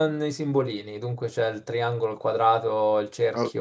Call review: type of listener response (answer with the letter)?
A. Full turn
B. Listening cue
A